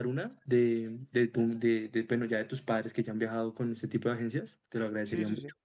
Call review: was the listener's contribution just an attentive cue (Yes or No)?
No